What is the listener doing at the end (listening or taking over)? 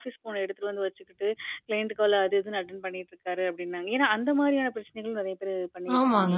taking over